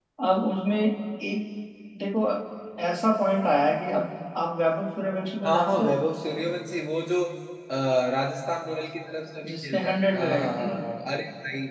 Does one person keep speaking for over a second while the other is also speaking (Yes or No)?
Yes